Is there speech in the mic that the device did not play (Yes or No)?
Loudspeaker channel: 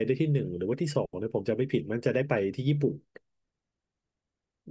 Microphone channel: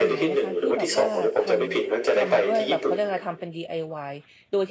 Yes